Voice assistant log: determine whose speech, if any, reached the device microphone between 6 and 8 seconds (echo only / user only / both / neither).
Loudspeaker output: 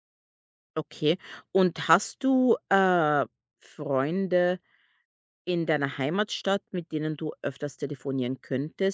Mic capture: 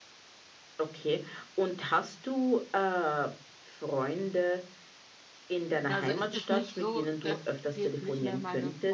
both